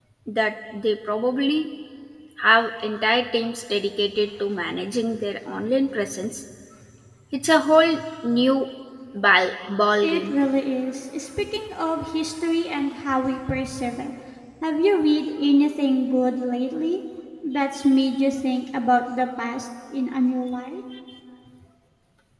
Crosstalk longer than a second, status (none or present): none